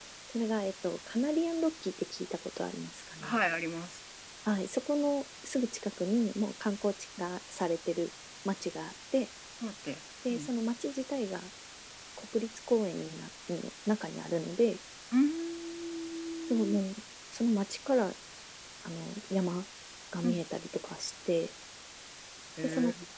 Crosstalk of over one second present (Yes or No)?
No